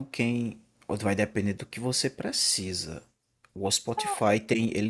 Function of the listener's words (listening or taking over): listening